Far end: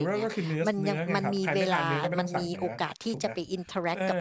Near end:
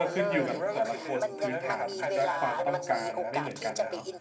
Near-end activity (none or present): present